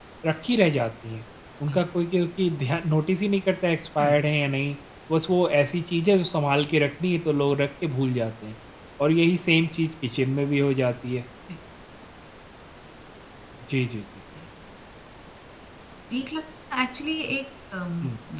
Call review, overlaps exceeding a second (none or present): none